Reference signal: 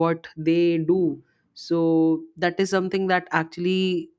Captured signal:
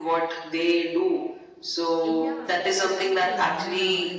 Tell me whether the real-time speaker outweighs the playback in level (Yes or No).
No